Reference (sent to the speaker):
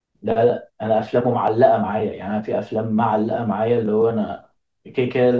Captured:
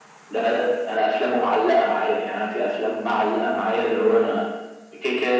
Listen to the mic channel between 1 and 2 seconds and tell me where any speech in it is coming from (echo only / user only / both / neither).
echo only